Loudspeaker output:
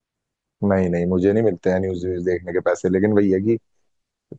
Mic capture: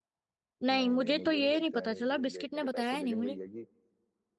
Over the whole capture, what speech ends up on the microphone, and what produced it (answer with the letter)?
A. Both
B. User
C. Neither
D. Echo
A